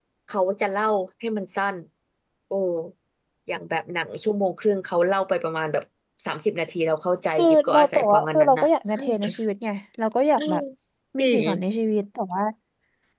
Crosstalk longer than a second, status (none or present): present